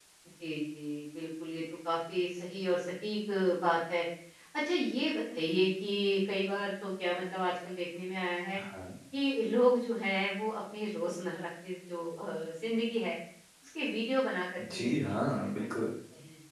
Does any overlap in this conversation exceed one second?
Yes, from 14.6 s

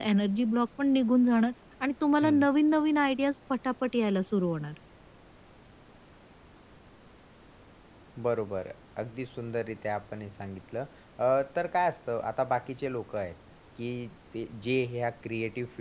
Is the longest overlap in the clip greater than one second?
No

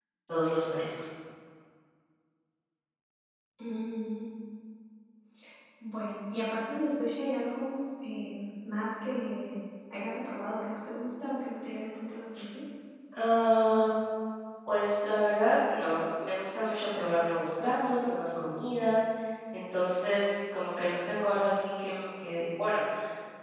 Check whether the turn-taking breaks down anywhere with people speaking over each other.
No

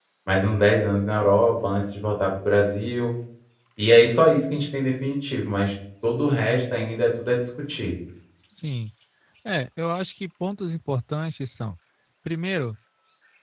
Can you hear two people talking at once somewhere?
No

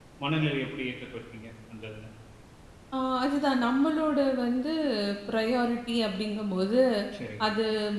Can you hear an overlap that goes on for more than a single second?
No

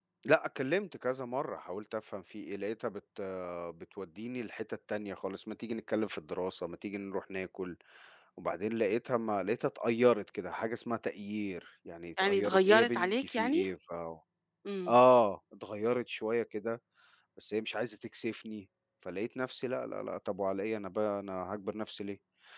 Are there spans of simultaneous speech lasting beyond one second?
Yes, from 12.2 s

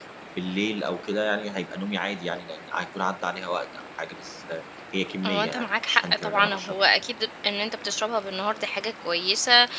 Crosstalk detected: Yes, from 5.2 s

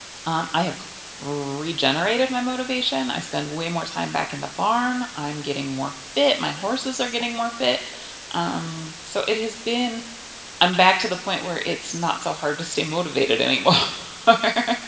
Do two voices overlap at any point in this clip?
No

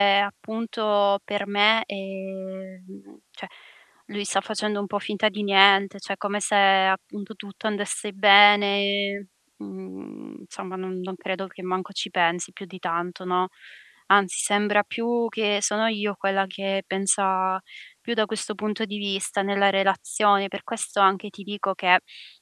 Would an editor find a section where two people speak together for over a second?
No

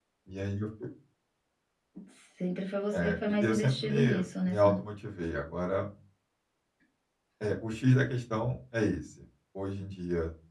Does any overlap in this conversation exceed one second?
Yes, from 2.9 s

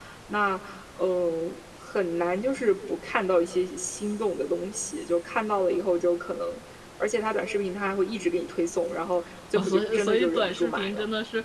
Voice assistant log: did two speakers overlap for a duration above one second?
Yes, from 9.6 s

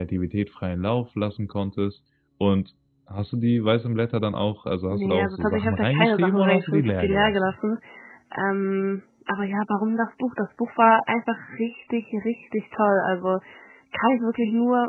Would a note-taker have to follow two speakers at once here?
Yes, from 4.9 s

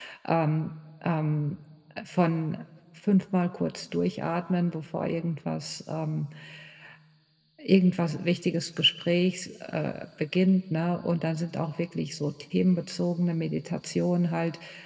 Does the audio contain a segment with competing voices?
No

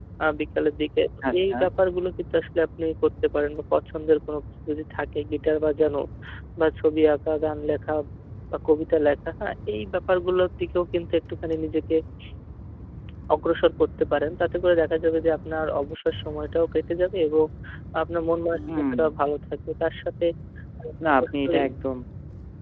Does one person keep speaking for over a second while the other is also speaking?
No

